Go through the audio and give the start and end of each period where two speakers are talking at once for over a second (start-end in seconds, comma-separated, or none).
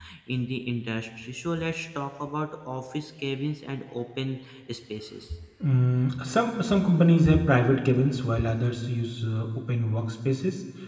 none